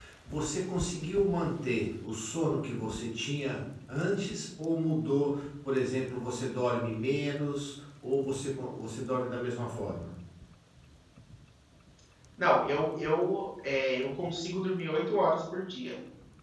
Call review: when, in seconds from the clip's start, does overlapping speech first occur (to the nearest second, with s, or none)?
none